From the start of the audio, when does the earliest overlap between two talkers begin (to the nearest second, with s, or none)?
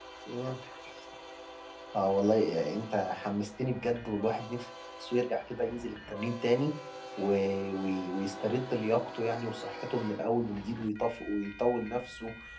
none